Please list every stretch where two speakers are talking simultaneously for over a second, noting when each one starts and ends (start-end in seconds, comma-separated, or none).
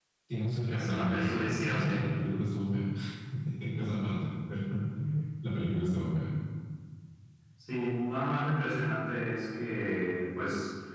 0.7-2.1